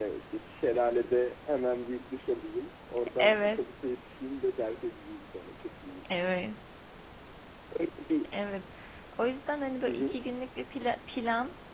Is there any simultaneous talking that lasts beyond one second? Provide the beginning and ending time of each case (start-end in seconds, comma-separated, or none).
none